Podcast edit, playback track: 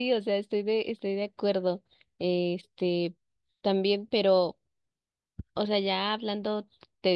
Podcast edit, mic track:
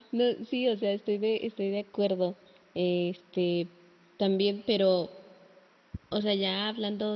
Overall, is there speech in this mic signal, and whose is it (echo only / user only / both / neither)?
echo only